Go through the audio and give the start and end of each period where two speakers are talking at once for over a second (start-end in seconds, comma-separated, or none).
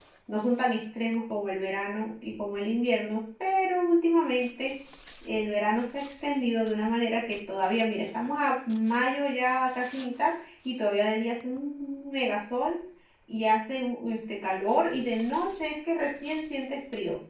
none